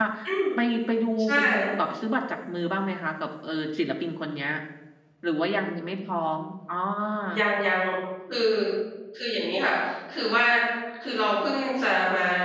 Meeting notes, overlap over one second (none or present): none